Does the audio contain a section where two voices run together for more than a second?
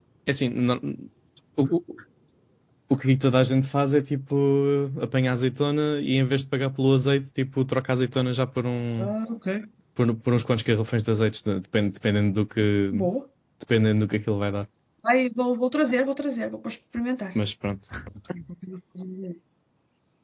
No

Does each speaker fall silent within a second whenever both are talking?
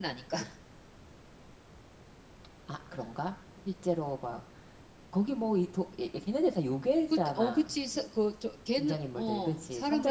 No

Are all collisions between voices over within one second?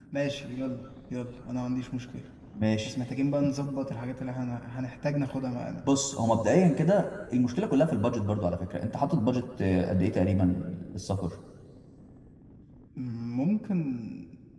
Yes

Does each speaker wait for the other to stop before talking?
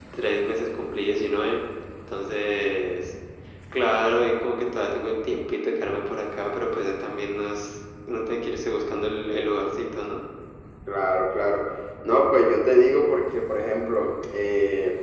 Yes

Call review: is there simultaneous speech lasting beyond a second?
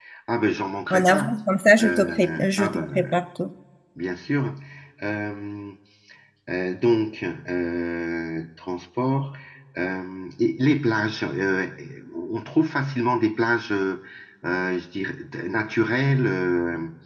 Yes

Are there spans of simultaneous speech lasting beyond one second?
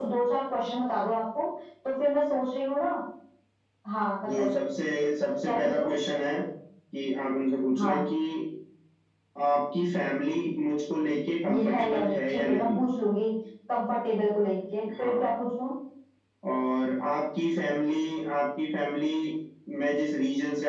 Yes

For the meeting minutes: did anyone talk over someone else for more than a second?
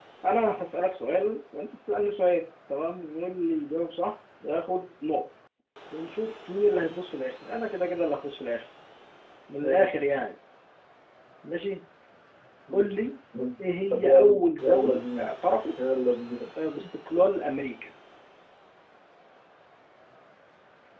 Yes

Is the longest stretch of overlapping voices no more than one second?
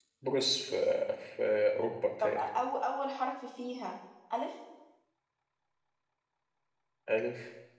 Yes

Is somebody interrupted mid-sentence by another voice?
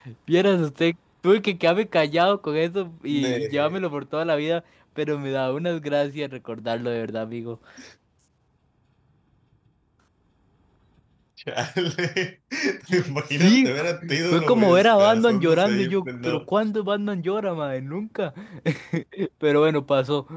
Yes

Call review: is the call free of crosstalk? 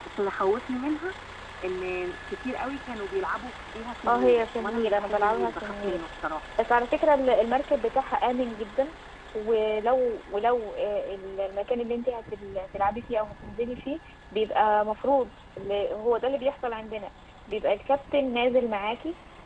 No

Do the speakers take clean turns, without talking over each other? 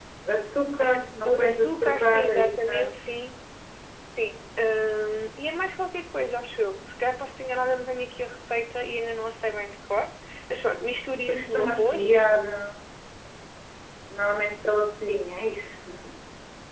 No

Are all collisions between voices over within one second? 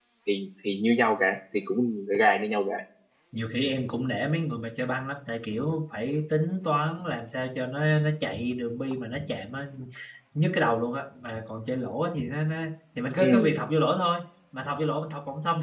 Yes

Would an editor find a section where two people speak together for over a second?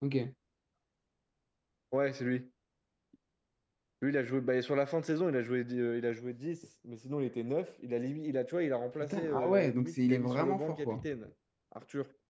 Yes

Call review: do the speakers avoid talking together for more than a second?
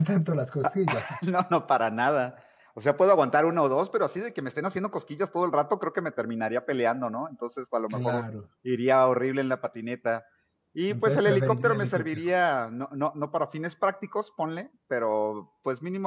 No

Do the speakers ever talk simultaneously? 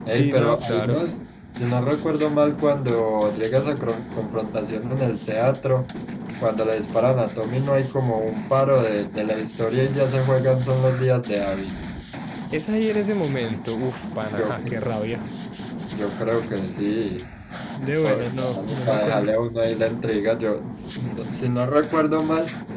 Yes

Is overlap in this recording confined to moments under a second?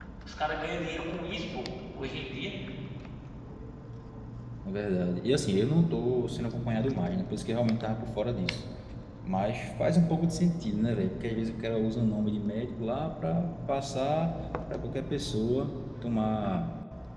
Yes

